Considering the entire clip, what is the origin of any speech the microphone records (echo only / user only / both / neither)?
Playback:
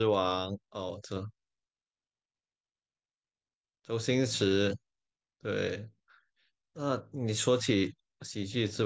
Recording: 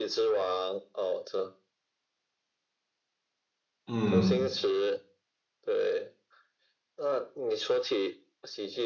both